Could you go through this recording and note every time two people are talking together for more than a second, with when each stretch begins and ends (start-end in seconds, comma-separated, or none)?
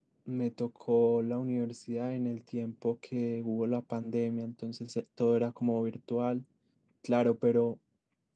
none